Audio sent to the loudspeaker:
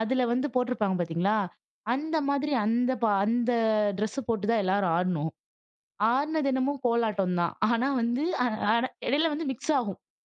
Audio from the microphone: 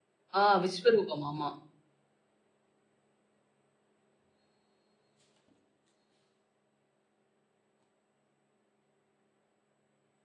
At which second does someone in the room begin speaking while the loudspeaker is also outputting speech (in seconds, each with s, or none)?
0.4 s